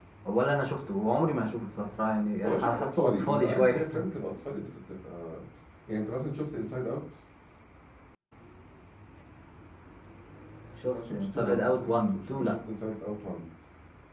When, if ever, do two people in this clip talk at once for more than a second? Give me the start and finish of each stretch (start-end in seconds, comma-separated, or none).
2.4-3.8, 10.8-12.6